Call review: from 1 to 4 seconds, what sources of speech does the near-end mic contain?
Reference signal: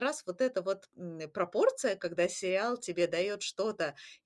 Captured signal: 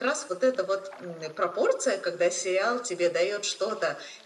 echo only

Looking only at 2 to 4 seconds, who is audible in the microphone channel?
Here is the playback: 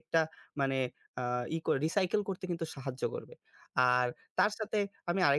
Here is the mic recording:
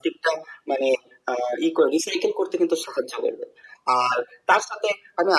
echo only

